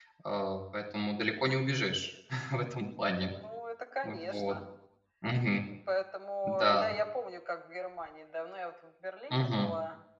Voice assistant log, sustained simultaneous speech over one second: none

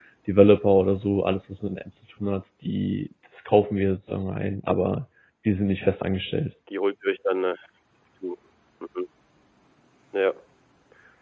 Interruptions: none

